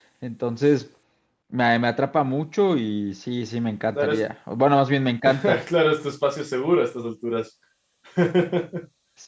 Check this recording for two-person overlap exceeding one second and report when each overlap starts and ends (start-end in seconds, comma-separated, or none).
none